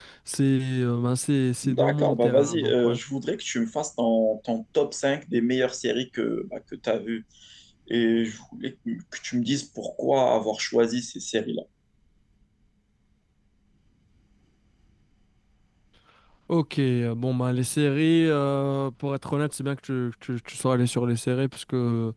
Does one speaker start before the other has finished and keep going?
Yes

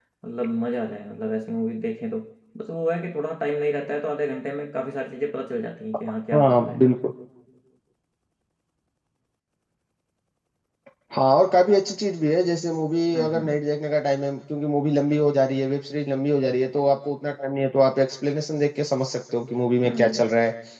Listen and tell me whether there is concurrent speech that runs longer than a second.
No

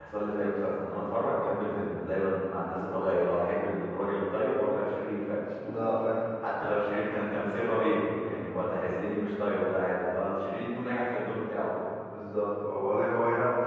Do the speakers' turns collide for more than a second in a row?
No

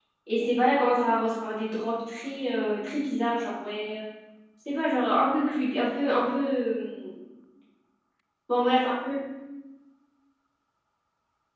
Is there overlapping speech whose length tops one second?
No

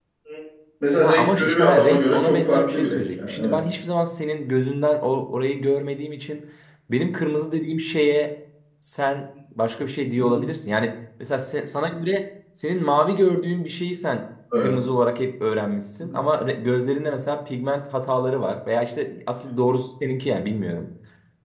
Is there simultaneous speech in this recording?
Yes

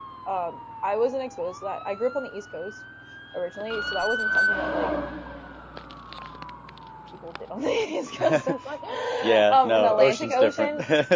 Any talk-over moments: Yes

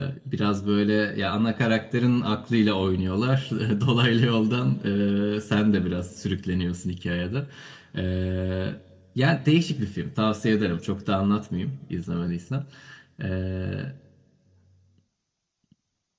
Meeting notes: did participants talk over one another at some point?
No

